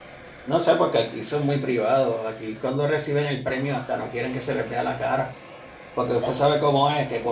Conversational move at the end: listening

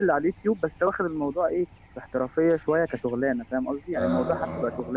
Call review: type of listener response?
listening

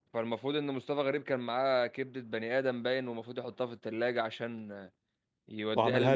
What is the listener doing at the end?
listening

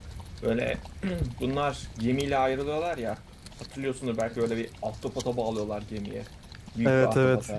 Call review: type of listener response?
taking over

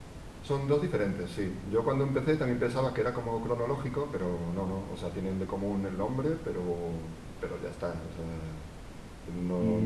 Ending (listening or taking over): taking over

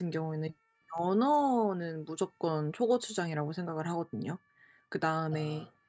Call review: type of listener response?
listening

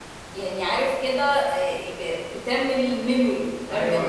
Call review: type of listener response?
taking over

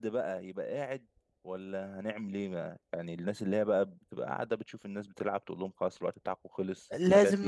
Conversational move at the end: taking over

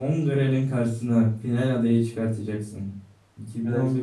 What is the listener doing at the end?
listening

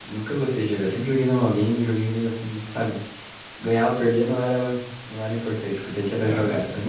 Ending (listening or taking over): taking over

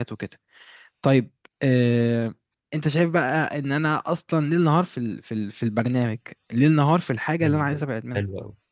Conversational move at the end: taking over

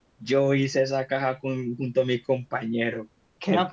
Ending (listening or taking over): taking over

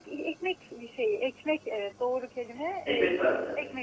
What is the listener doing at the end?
listening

